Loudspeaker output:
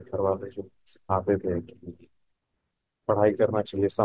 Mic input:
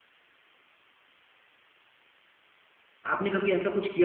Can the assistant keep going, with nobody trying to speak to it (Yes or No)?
No